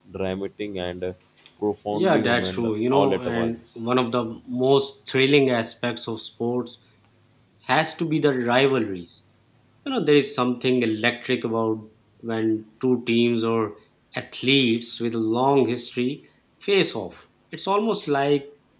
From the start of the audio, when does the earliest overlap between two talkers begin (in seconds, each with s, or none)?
1.9 s